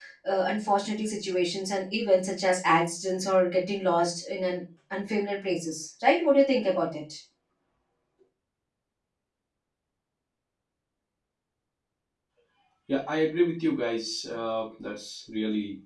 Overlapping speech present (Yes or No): No